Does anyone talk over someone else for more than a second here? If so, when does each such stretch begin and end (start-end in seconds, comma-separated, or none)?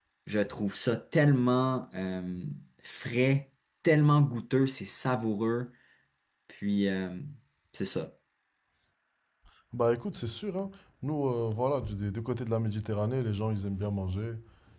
none